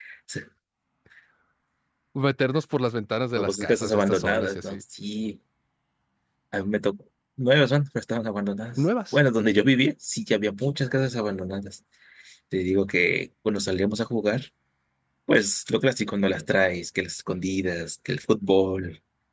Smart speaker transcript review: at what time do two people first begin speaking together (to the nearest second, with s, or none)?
3 s